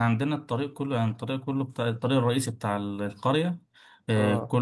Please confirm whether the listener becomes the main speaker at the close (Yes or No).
No